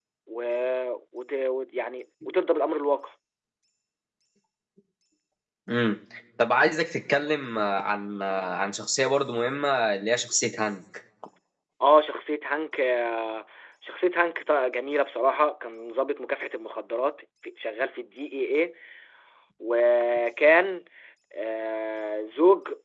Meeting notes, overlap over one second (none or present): none